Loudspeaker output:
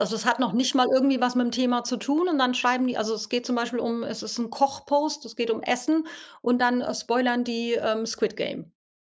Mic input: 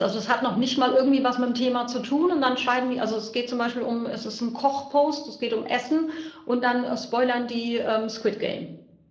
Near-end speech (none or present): none